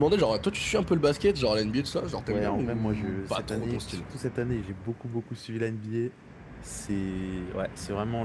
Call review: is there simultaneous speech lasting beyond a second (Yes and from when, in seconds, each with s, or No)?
Yes, from 2.3 s